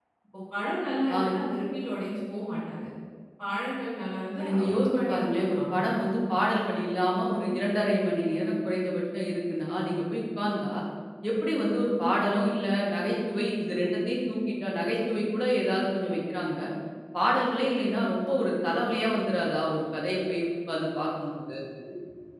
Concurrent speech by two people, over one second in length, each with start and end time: 4.4-6.0

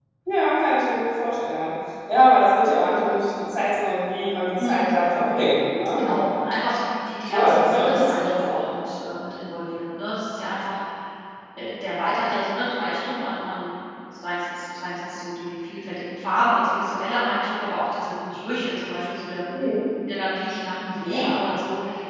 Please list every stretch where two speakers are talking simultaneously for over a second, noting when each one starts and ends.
7.3-8.6

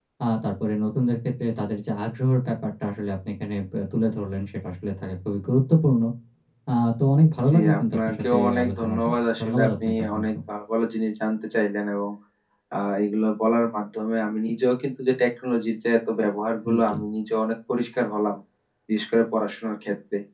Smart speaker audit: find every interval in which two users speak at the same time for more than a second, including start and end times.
7.5-10.3

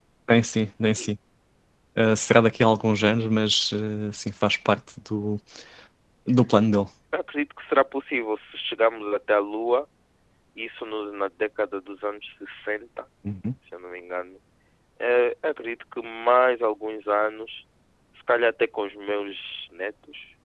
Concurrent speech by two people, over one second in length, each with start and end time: none

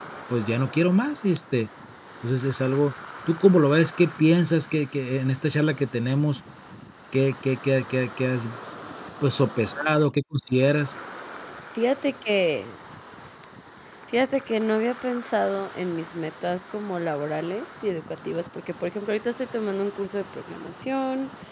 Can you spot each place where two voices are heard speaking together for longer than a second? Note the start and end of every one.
none

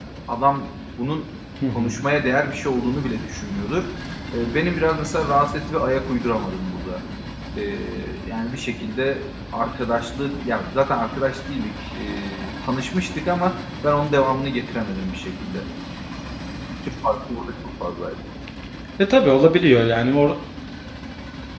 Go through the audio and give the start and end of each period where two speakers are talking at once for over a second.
none

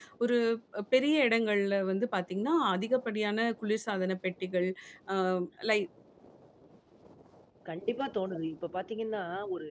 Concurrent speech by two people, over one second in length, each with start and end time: none

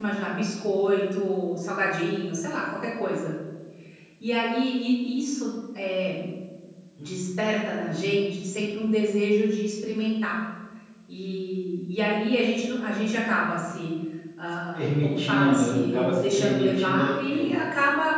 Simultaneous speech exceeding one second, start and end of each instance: 14.5-17.5

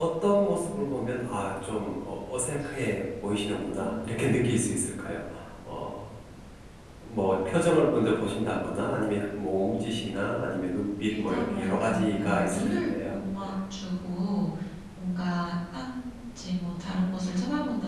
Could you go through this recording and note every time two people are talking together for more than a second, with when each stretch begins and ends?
11.1-13.5

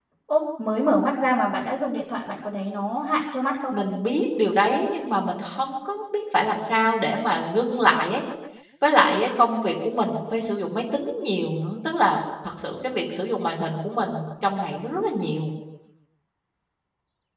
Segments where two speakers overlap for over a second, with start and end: none

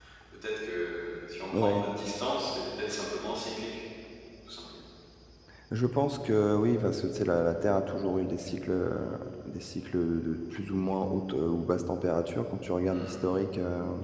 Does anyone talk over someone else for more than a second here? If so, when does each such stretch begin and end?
none

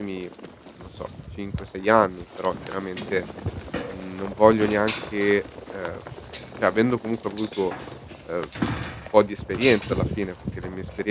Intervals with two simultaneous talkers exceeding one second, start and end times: none

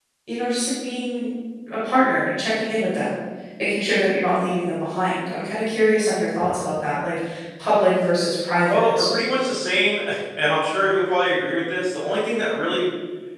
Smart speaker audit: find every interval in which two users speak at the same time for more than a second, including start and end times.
none

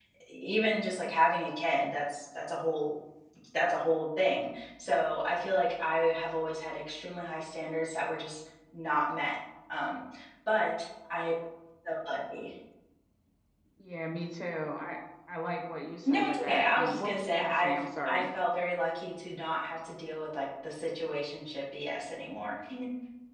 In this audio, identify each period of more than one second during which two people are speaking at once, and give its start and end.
16.1-18.2

